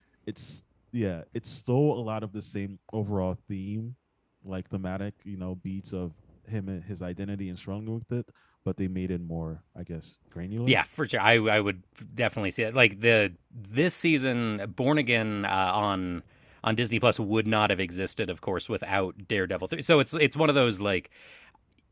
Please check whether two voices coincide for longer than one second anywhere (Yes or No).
No